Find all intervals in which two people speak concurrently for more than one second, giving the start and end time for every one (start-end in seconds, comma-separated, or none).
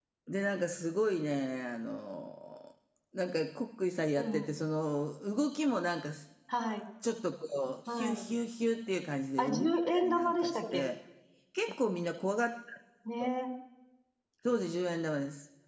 9.4-10.9